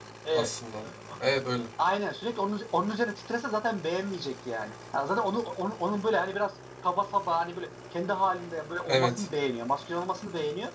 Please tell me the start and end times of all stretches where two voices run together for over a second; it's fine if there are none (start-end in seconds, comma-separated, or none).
none